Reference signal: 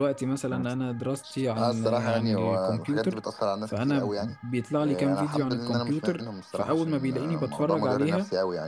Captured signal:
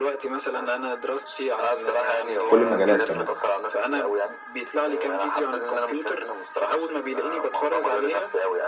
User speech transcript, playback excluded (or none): كل المجالات كمان